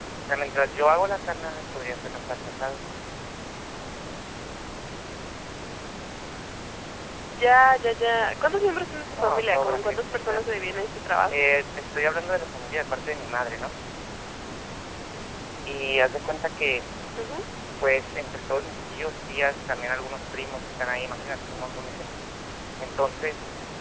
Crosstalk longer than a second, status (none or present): present